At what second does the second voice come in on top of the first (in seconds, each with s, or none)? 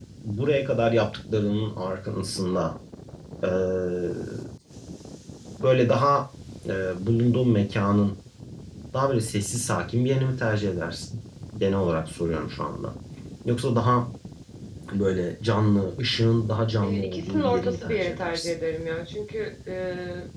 16.8 s